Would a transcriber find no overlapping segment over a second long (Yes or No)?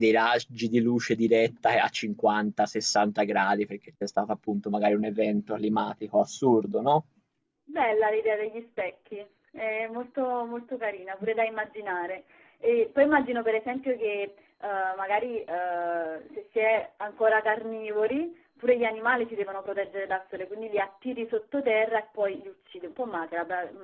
Yes